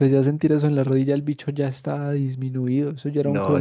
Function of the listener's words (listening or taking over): taking over